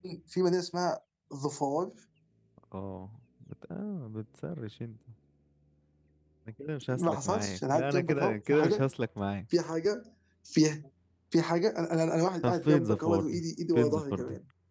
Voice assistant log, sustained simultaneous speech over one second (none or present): present